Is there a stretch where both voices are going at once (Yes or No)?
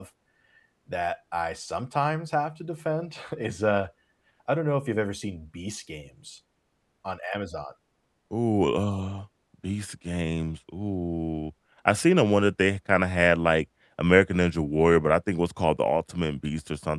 No